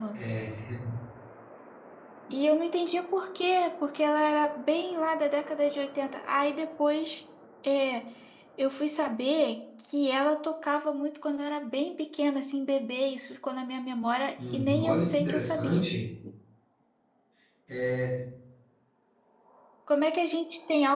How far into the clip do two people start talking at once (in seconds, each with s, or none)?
14.4 s